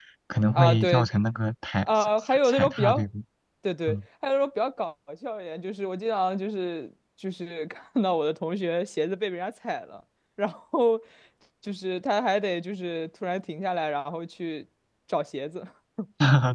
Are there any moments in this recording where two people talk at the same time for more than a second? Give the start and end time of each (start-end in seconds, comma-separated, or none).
1.8-3.0